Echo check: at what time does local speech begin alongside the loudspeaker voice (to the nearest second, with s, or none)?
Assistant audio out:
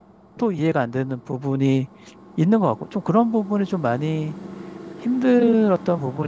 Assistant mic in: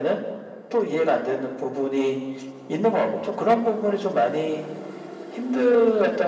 none